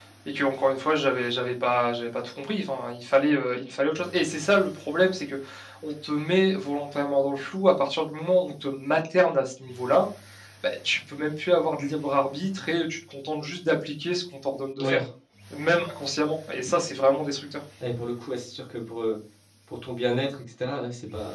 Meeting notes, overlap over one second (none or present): none